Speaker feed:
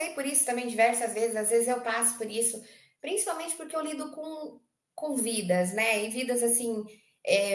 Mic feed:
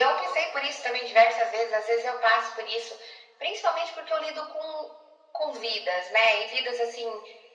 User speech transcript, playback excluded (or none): none